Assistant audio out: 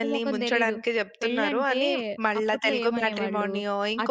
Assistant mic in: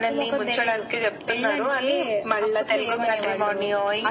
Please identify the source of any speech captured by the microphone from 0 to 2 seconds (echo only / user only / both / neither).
echo only